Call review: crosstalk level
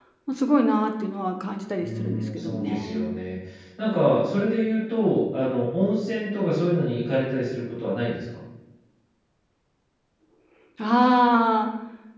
present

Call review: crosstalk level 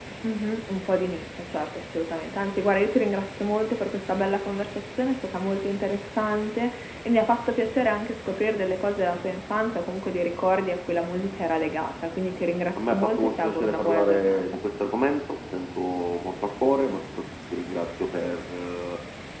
present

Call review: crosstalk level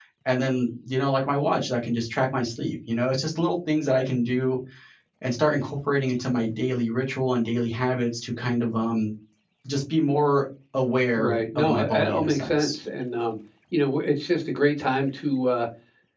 present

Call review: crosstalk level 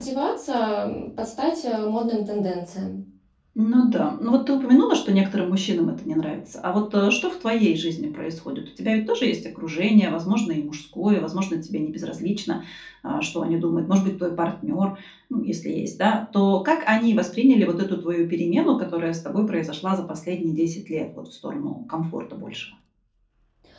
none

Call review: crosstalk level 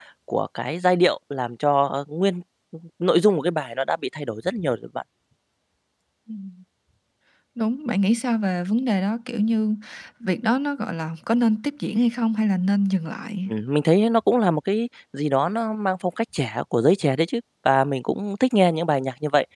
none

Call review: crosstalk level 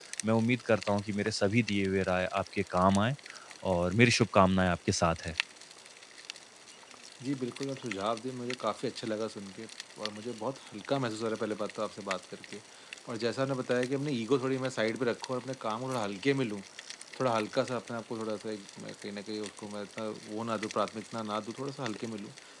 none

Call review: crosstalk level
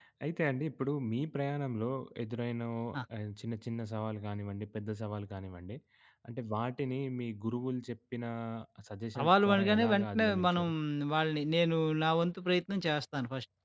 present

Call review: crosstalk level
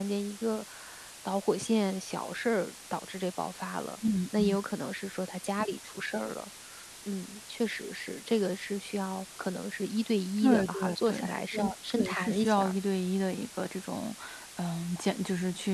present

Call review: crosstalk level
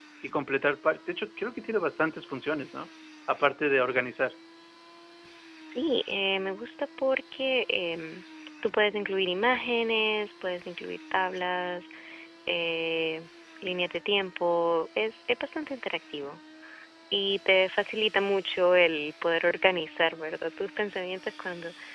none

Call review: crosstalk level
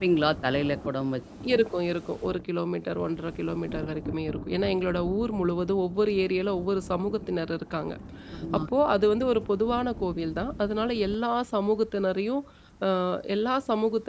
none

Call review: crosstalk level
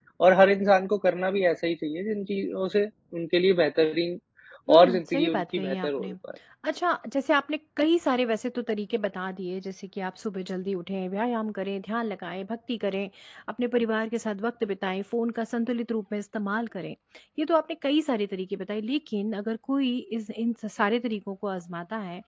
present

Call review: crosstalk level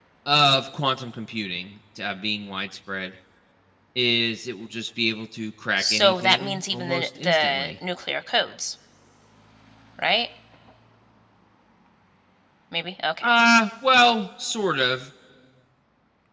present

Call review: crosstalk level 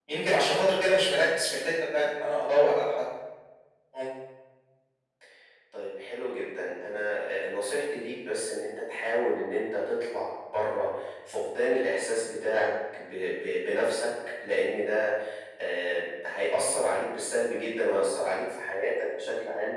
none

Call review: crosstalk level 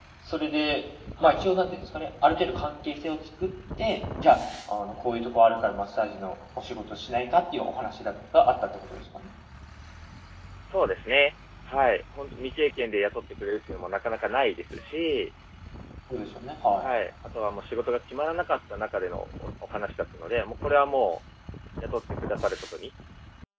none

